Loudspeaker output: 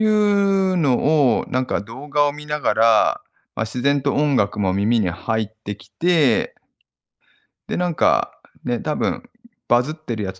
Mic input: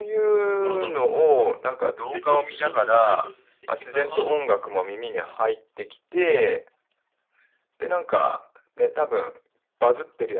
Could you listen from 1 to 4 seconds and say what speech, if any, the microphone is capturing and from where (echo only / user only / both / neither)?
both